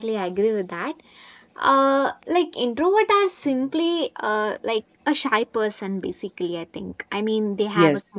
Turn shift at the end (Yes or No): No